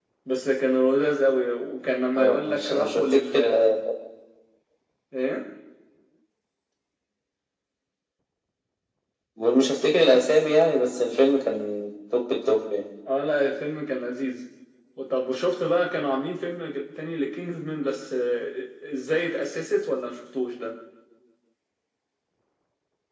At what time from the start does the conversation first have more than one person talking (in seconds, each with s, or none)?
2.2 s